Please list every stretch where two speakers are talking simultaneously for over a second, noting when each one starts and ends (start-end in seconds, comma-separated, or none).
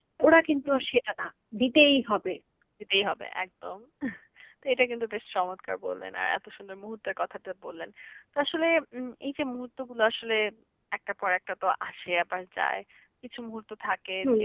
none